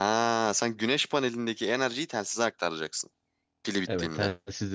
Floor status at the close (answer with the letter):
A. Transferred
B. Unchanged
A